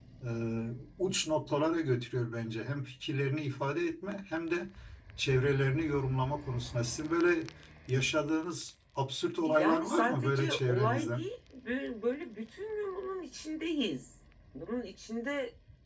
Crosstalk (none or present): present